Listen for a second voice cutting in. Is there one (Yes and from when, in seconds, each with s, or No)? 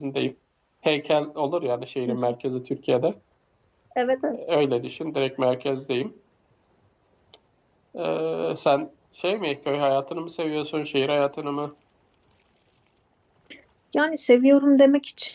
No